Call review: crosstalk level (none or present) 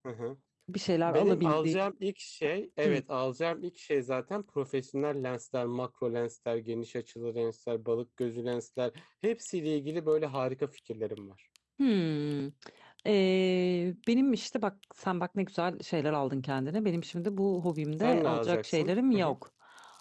present